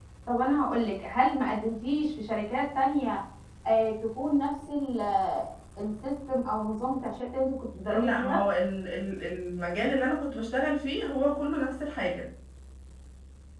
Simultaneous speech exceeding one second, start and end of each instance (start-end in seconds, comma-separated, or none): none